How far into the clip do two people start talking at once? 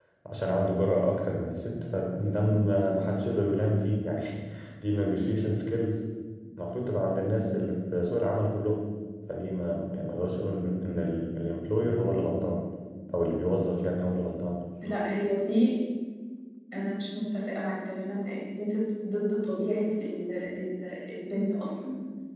none

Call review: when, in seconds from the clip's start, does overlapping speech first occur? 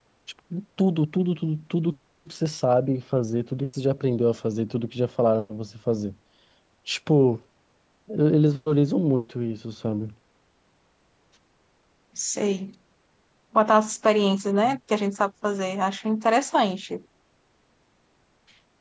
none

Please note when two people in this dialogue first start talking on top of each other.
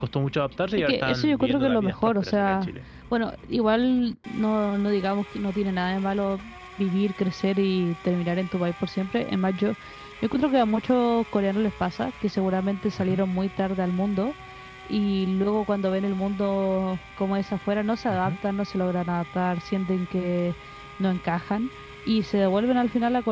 0.8 s

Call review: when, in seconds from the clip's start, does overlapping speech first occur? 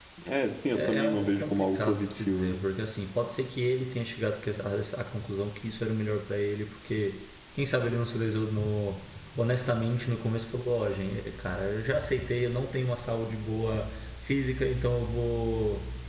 0.7 s

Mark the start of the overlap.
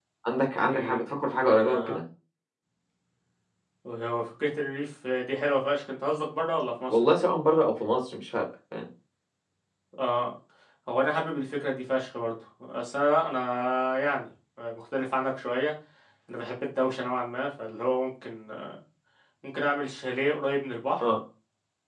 0.7 s

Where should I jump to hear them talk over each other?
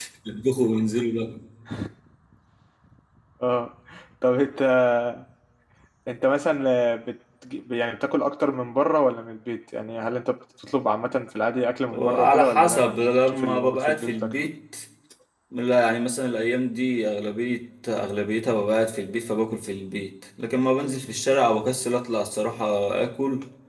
11.9 s

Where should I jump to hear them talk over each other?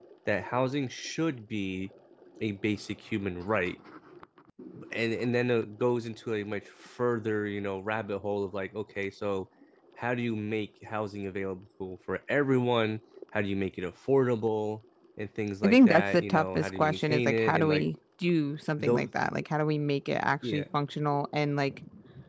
15.6 s

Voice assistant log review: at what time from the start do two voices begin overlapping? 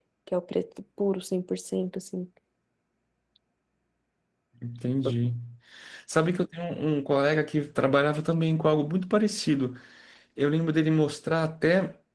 none

